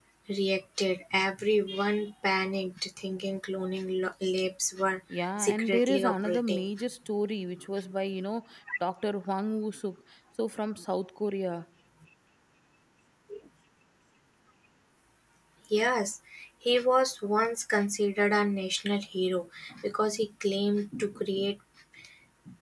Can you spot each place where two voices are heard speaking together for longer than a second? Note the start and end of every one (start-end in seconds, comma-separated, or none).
5.1-6.7